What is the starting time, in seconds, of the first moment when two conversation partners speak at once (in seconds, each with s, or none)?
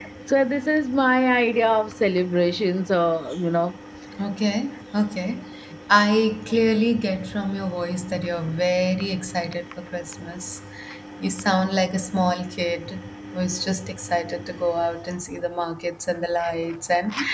none